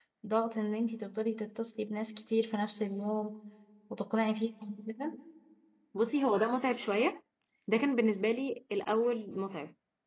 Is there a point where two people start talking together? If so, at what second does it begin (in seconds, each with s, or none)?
none